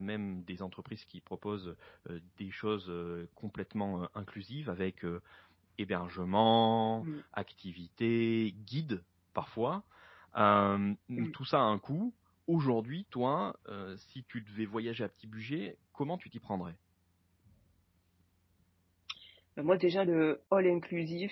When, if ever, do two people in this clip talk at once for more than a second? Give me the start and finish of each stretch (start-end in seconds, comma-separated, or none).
none